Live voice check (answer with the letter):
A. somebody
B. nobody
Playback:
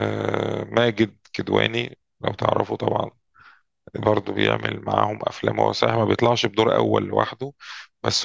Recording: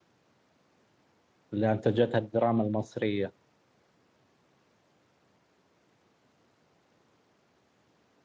A